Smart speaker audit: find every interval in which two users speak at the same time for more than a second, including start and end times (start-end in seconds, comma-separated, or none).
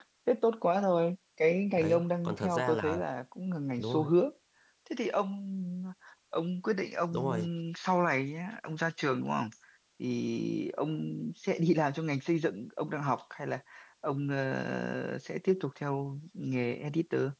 1.8-3.0